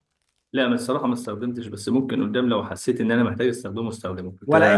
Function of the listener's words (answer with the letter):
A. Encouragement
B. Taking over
B